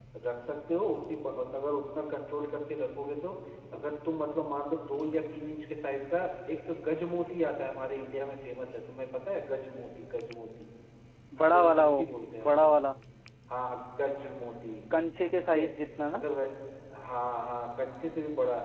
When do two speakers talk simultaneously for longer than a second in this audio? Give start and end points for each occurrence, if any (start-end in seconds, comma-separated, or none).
none